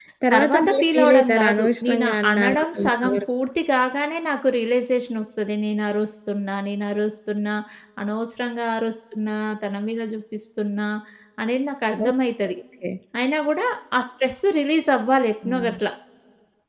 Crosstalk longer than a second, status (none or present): present